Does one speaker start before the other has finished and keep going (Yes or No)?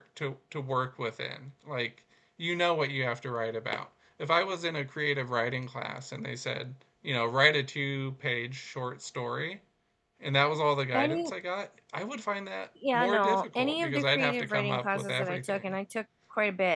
Yes